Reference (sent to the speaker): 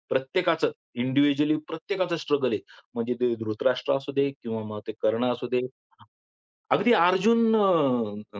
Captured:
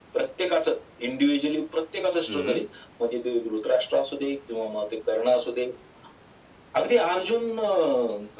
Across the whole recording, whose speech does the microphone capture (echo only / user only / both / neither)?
both